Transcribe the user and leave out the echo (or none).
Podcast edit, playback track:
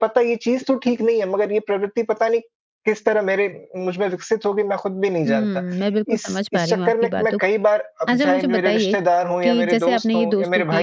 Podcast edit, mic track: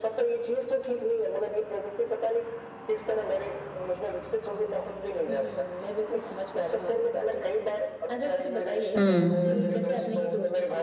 हुँ,